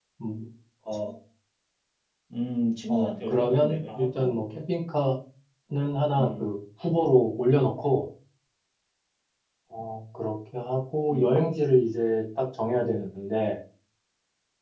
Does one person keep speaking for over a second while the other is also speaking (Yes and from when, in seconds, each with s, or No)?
Yes, from 2.9 s